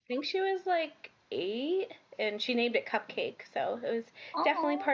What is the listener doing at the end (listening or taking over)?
listening